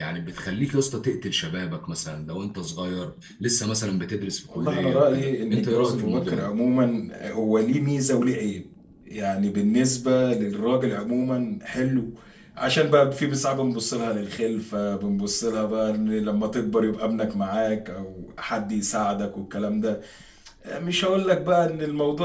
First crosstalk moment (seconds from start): 4.5 s

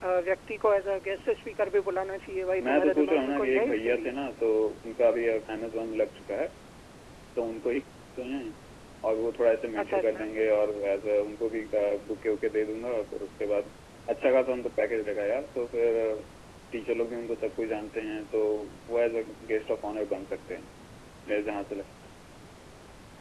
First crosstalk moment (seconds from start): 2.6 s

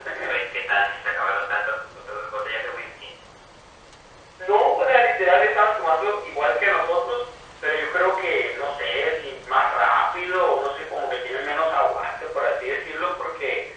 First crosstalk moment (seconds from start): none

